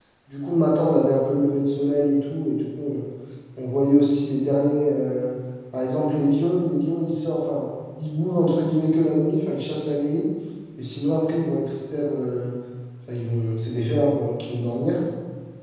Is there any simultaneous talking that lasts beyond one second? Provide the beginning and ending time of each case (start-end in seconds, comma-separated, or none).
none